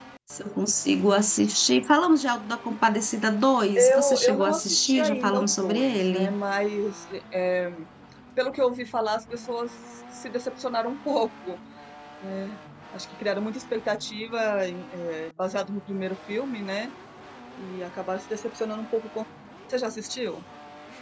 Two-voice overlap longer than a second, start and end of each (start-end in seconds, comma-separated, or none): 3.8-6.4